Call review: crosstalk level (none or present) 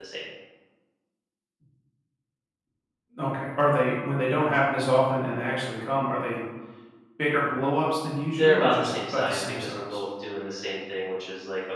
present